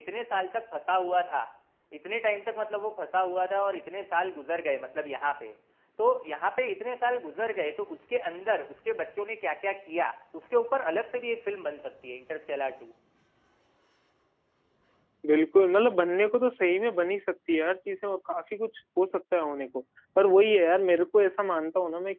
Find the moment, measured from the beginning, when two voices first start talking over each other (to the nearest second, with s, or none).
none